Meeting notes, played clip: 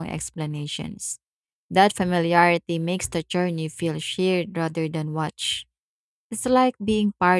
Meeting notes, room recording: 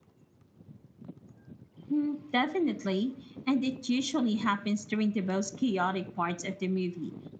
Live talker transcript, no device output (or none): Mm, definitely, and it usually happens during the most chaotic parts of the movie.